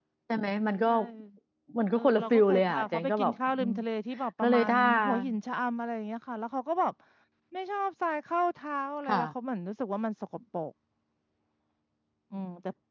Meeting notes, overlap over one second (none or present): present